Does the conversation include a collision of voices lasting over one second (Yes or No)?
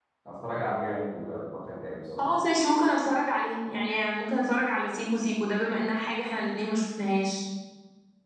No